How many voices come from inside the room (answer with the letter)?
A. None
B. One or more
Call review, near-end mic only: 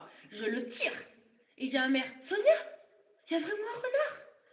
A